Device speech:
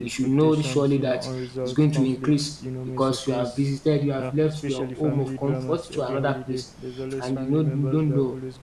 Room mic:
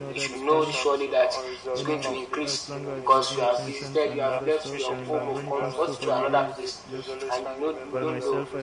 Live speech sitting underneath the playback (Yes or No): Yes